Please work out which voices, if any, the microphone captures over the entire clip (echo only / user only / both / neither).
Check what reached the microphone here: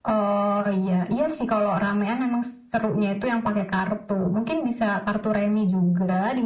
echo only